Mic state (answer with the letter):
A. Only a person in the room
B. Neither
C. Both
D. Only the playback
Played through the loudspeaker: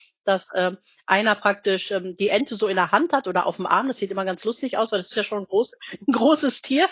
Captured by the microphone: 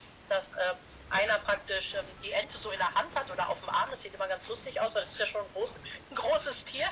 D